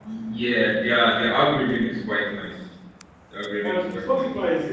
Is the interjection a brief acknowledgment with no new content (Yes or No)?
No